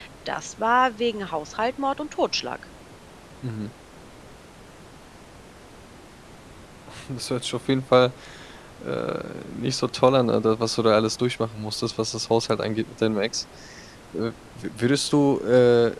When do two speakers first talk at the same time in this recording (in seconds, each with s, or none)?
none